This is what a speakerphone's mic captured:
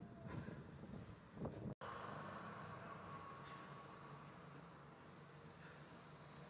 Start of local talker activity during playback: none

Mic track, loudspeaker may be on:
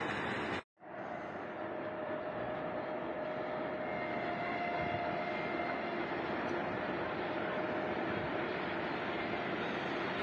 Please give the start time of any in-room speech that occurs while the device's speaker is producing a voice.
none

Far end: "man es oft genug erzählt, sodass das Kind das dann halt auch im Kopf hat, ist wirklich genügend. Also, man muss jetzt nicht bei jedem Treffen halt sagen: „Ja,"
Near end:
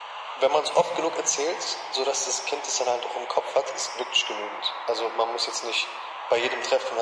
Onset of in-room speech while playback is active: none

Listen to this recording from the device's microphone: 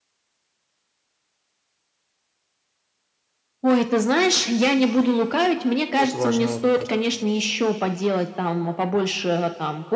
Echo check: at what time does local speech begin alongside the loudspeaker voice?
6 s

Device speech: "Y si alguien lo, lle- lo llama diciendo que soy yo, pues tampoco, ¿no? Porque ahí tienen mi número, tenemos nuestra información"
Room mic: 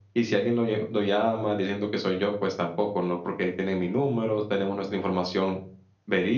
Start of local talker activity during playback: none

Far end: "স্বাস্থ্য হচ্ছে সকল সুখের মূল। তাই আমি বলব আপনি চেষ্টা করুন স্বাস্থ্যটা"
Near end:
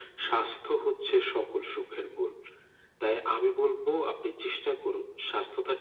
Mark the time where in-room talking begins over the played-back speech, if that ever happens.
none

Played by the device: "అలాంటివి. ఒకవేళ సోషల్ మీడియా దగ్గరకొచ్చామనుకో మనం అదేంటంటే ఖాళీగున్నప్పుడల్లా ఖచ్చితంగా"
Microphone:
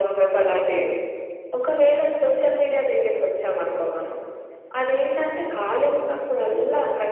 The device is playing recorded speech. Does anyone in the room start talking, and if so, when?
none

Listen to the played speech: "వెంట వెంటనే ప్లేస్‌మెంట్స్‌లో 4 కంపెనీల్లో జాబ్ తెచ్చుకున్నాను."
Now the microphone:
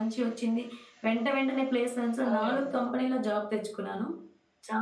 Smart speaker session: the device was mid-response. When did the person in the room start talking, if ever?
2 s

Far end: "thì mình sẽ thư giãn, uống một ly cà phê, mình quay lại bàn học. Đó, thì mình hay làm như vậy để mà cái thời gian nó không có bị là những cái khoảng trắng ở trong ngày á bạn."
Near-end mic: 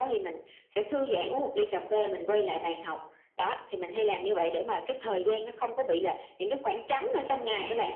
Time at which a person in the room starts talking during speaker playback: none

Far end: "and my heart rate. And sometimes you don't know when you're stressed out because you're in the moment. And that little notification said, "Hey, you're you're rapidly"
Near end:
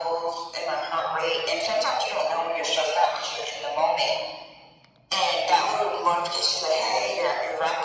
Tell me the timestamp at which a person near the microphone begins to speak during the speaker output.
none

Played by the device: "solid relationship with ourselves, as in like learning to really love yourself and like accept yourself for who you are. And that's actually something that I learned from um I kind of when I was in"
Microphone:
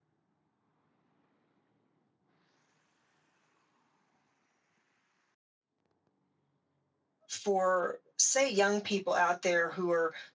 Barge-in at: 7 s

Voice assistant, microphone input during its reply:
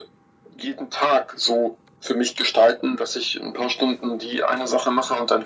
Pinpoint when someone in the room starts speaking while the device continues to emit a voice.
none

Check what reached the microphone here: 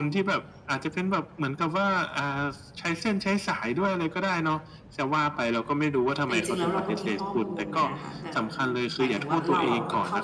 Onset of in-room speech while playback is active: 6 s

